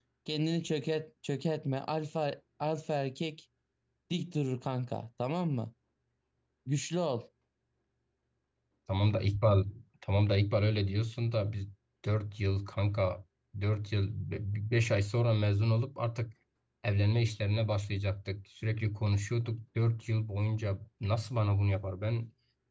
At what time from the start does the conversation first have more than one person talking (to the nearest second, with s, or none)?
none